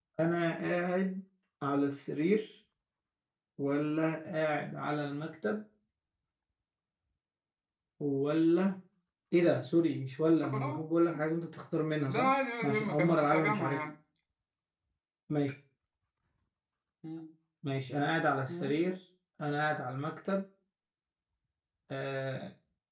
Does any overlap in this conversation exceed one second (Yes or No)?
Yes